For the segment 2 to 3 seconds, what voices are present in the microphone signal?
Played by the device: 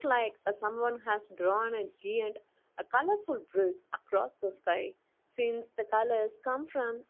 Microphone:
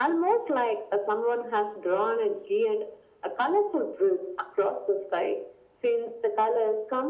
echo only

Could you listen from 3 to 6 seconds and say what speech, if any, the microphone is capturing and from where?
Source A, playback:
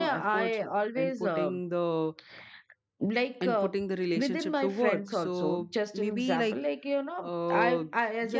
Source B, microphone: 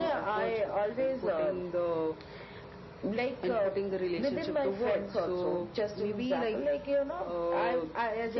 echo only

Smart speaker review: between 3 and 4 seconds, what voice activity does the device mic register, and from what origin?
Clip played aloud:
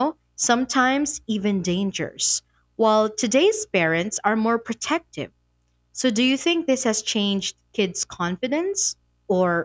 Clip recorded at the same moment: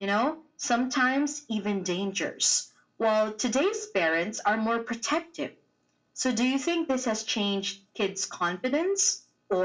echo only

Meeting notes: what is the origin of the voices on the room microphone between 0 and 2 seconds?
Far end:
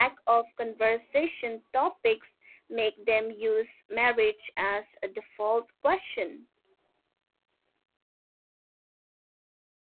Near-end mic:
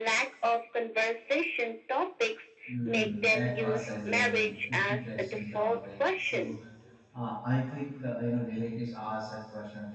echo only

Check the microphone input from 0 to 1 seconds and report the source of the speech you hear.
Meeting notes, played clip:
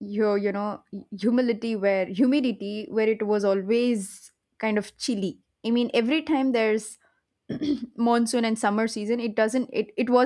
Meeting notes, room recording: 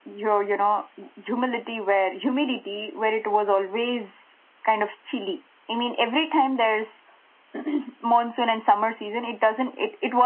echo only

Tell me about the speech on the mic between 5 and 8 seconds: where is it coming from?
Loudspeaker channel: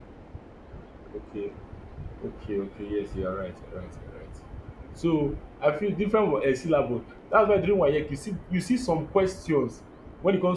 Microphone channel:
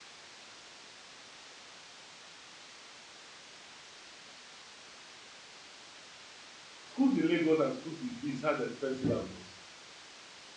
user only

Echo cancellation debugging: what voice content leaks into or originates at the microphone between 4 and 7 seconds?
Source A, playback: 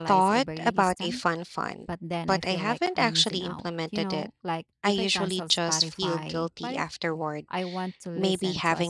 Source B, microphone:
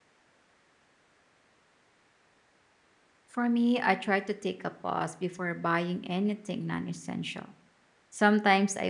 user only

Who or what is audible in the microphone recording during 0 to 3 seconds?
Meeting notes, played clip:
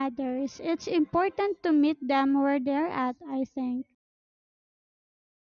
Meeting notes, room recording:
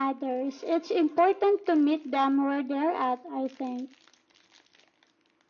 echo only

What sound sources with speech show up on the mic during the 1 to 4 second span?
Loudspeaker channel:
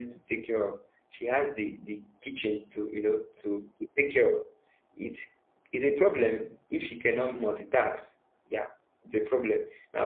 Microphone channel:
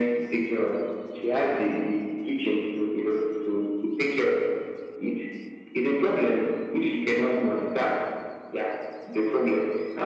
echo only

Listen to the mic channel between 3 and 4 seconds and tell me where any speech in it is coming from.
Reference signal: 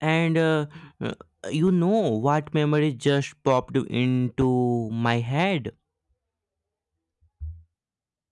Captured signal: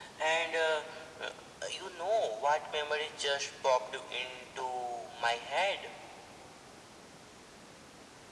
echo only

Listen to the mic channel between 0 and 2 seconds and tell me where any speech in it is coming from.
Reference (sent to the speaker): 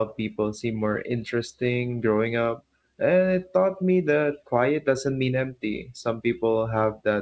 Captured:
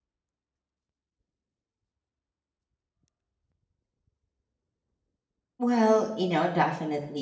neither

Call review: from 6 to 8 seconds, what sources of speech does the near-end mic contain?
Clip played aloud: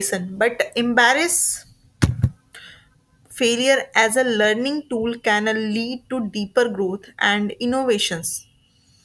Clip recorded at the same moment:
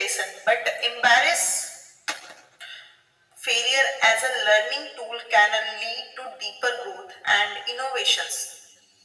echo only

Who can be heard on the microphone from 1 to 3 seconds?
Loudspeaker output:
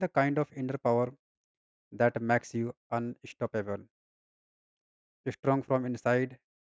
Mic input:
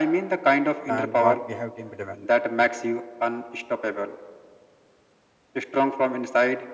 both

